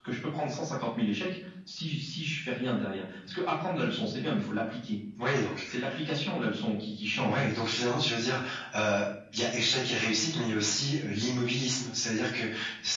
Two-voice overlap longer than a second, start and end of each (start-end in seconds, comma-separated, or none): none